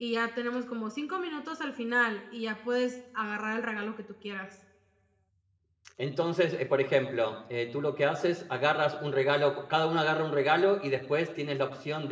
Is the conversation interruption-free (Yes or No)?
Yes